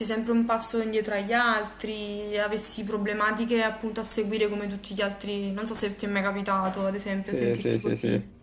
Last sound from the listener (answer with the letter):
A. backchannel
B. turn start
B